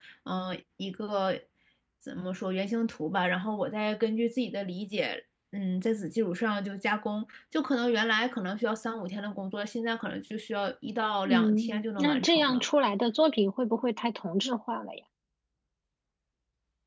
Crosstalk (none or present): present